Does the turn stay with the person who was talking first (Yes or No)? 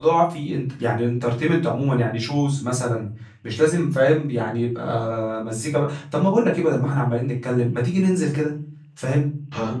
Yes